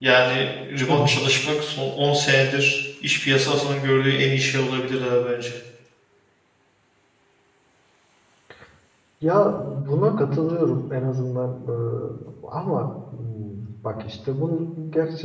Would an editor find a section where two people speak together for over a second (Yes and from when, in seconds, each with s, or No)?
No